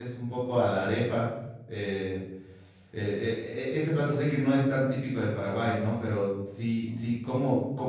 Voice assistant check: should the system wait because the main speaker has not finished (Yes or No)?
Yes